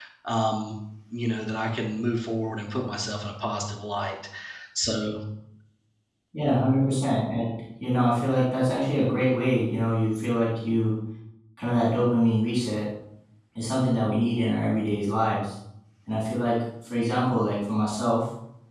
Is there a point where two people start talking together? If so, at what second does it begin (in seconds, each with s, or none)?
none